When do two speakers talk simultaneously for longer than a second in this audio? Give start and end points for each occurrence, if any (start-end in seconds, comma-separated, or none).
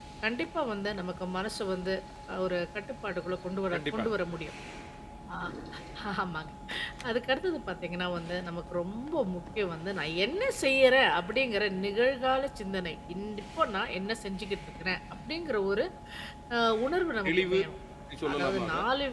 none